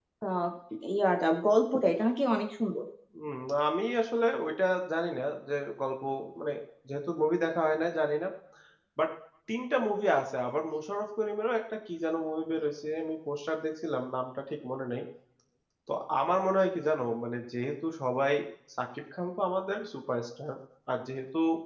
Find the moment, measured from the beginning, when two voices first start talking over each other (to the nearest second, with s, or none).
none